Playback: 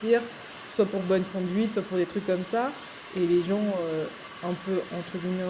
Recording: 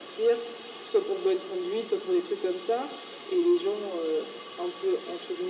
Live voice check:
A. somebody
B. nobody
B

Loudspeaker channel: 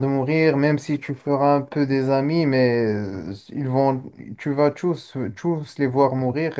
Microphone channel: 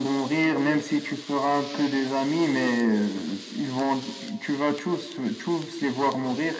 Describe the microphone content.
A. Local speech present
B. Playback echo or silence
B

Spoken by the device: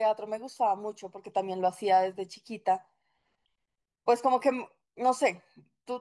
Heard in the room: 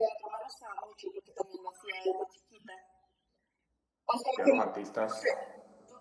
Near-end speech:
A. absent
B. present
B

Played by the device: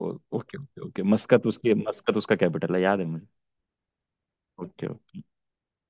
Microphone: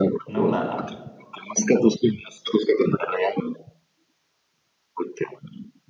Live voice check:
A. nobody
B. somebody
B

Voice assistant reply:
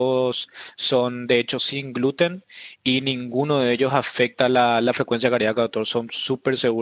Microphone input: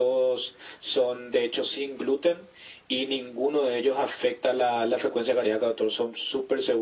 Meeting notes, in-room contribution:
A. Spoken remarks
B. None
B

